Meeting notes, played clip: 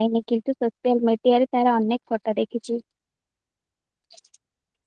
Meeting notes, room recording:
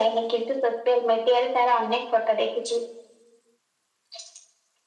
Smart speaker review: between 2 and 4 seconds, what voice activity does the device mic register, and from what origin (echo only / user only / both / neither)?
echo only